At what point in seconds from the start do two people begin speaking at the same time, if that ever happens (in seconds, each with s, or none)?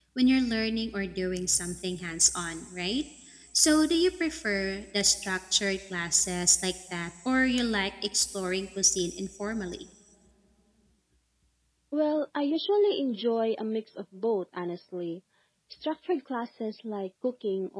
none